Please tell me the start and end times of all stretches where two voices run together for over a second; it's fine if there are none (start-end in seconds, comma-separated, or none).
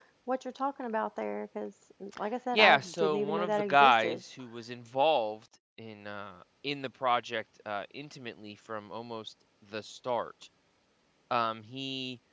2.5-4.2